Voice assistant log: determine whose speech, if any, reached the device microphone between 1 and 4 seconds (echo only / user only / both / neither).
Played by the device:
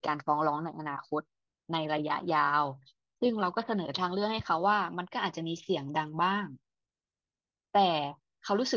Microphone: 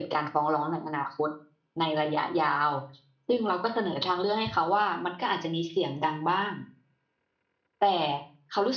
echo only